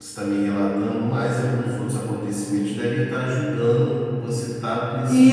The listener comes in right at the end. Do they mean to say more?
Yes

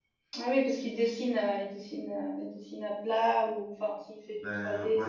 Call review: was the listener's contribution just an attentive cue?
No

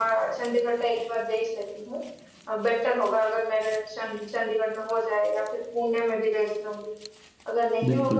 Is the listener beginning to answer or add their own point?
No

